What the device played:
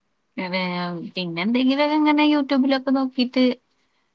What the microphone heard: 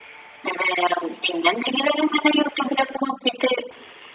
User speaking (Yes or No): No